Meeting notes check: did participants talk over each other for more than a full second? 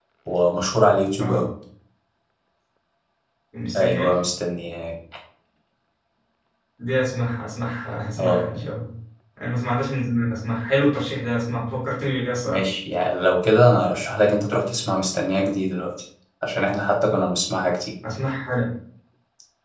No

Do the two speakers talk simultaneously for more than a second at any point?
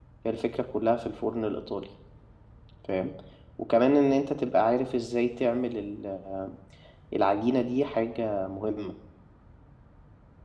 No

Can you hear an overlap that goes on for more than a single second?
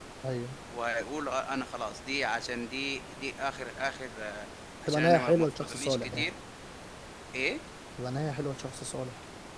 Yes, from 4.9 s

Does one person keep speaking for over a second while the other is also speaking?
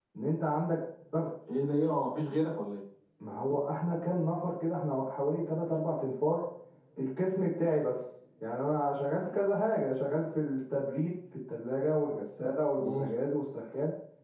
No

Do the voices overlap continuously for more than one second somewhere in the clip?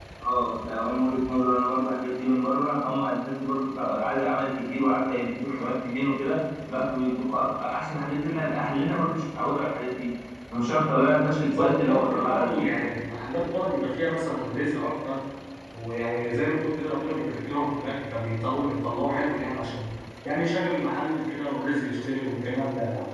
Yes, from 11.3 s

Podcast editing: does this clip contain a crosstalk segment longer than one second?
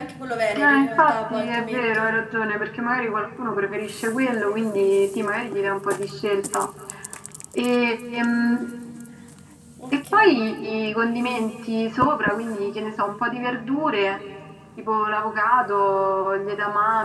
Yes, from 0.6 s

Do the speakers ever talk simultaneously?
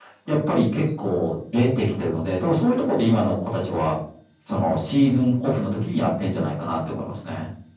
No

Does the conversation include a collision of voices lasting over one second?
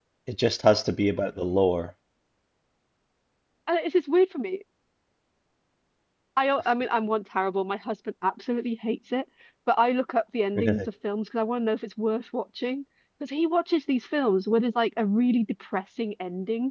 No

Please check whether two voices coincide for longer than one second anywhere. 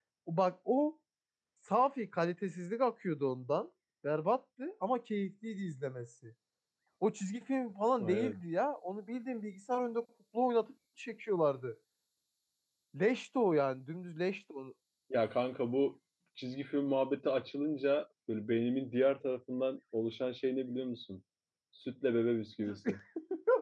No

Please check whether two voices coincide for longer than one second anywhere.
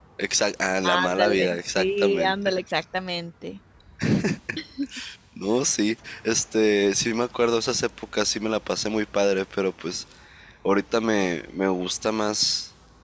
Yes, from 0.8 s

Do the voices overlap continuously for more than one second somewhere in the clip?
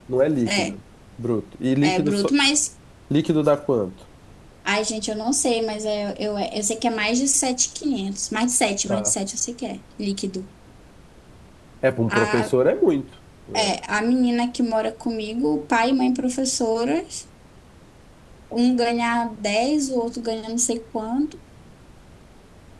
No

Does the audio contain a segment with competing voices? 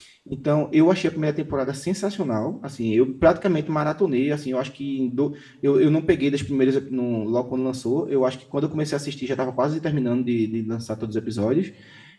No

